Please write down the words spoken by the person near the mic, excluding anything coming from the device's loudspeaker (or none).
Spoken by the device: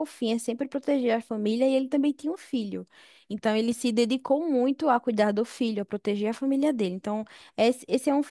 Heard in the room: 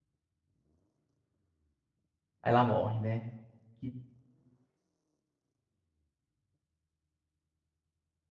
Ela morre, né? E-